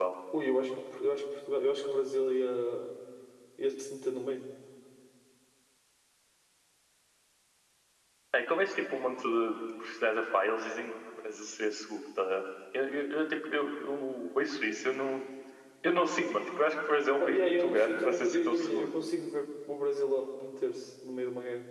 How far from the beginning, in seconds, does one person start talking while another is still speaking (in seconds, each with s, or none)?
17.2 s